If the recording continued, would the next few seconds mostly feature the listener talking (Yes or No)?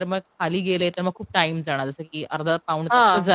No